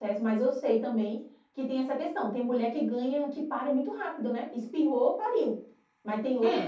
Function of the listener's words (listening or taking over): taking over